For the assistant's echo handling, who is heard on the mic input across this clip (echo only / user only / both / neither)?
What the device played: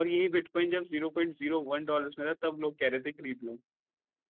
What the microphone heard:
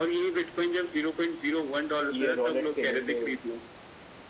both